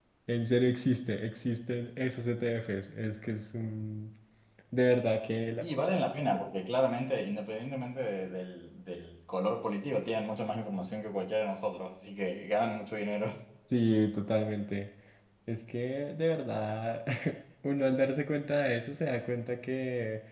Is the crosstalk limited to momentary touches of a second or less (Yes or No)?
Yes